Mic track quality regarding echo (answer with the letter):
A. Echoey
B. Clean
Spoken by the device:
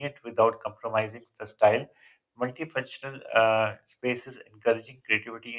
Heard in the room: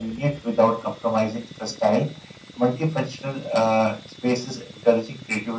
A